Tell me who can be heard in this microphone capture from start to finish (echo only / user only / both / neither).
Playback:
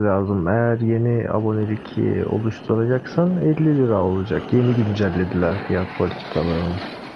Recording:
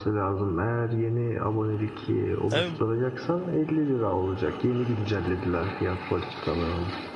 both